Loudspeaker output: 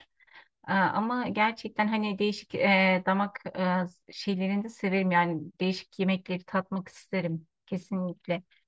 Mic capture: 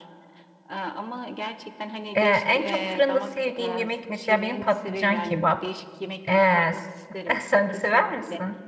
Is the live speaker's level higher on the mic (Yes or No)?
Yes